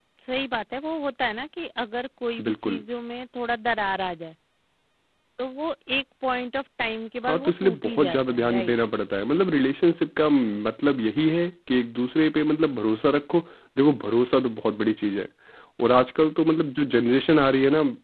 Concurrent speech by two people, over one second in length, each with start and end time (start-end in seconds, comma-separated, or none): 7.3-8.7